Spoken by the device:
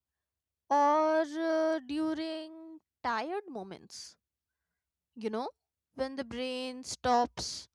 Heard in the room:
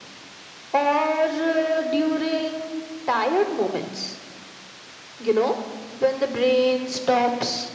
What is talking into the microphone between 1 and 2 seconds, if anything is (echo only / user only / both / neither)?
echo only